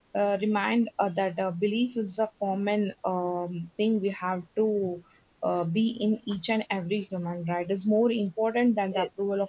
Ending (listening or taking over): listening